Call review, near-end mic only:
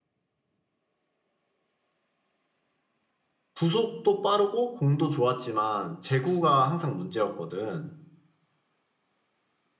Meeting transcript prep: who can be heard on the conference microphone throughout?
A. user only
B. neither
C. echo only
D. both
A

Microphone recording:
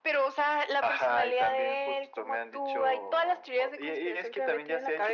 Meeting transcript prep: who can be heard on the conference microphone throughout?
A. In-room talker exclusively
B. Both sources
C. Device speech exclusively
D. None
C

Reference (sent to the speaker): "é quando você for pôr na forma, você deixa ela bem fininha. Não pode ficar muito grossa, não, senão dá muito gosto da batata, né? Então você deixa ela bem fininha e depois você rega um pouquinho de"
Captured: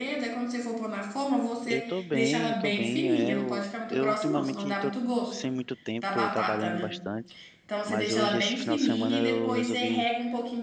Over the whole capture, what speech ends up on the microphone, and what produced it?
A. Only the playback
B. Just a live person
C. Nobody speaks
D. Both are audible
D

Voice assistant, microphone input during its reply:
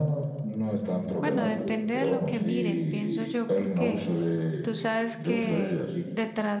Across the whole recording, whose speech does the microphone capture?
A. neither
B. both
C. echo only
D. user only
B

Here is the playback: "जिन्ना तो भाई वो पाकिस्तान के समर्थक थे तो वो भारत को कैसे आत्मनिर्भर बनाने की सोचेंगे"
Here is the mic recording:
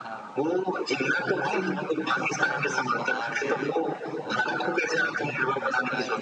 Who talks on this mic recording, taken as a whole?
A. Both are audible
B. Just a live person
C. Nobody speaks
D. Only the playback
A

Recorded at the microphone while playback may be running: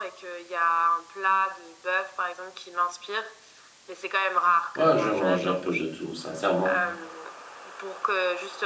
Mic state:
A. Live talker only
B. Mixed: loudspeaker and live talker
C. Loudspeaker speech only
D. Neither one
B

